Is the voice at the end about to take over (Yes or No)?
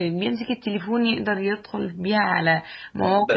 Yes